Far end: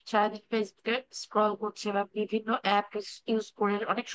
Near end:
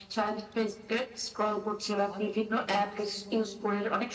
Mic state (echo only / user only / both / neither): both